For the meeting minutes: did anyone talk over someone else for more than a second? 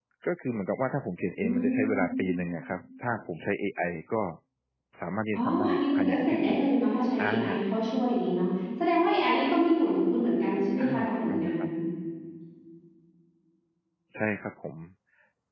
Yes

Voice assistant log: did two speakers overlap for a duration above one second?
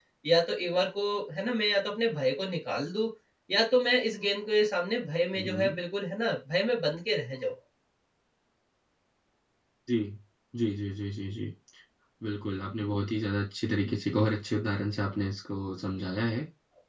No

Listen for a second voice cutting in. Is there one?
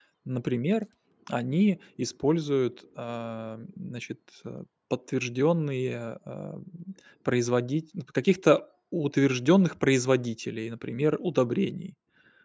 No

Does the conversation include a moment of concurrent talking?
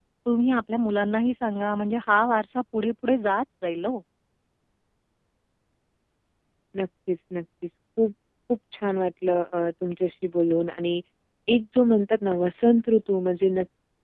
No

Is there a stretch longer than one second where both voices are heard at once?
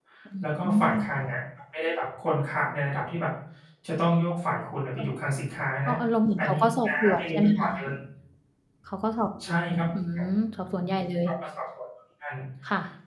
Yes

